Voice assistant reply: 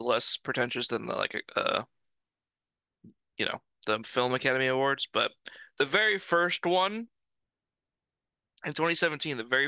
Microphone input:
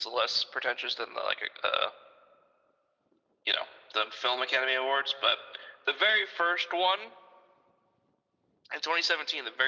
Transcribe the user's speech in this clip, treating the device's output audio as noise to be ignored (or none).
none